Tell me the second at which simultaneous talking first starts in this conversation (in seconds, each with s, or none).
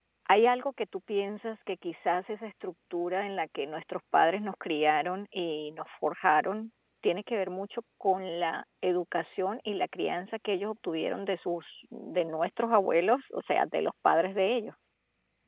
none